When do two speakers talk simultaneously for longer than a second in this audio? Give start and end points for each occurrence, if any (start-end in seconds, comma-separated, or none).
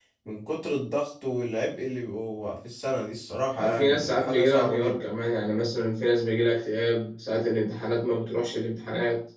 3.5-5.1